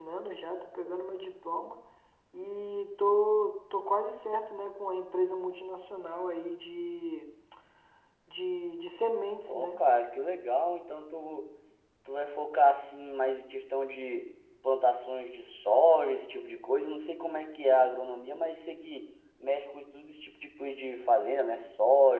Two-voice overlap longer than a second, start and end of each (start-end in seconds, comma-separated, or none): none